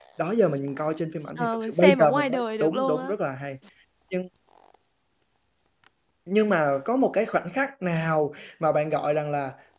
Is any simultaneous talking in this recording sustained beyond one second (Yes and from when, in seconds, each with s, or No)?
Yes, from 1.4 s